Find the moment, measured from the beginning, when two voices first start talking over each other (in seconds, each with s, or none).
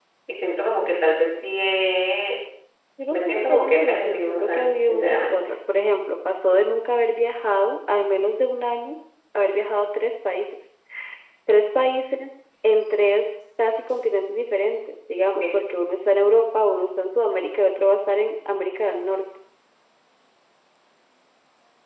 3.1 s